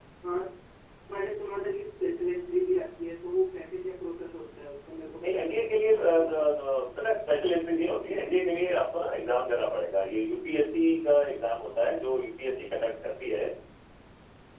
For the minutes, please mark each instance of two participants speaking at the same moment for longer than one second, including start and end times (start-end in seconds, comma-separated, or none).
5.2-6.5